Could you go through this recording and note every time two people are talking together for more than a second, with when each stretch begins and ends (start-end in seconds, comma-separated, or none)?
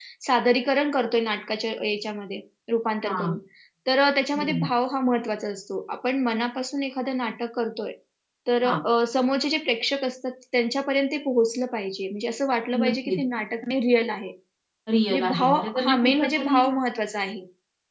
15.1-16.6